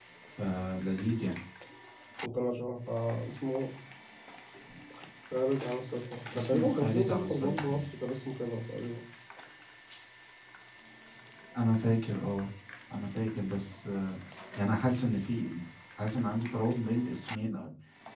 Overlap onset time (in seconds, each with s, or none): 6.3 s